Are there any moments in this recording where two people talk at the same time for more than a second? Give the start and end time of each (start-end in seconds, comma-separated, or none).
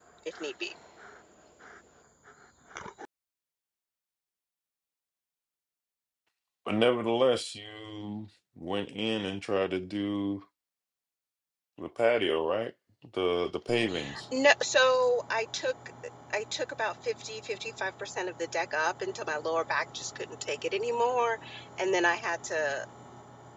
none